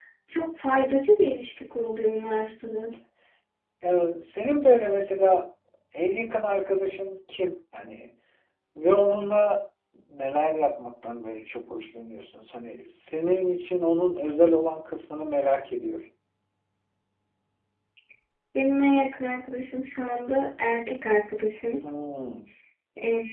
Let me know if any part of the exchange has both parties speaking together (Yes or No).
No